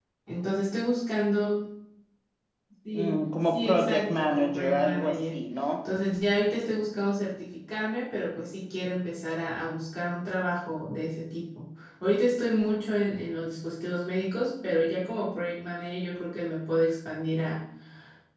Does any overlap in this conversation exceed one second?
Yes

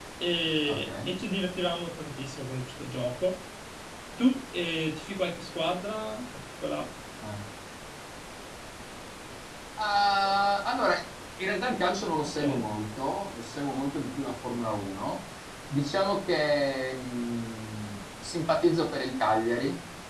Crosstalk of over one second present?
No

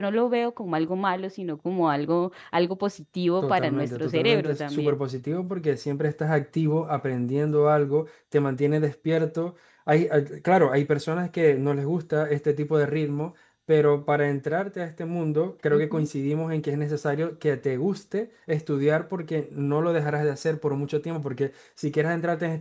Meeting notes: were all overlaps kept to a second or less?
No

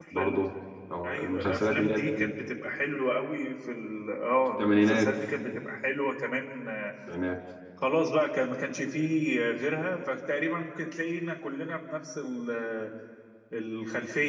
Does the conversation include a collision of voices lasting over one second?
Yes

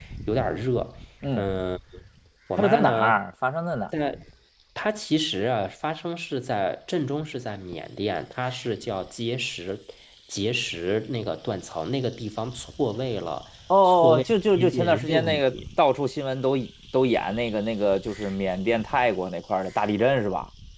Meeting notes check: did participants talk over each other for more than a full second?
Yes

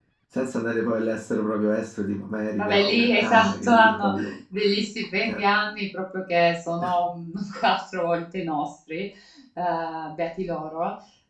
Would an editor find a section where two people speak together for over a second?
Yes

